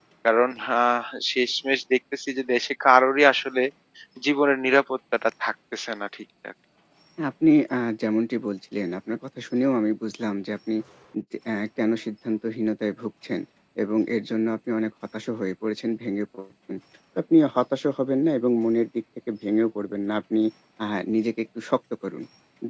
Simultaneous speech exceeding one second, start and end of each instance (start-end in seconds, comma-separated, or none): none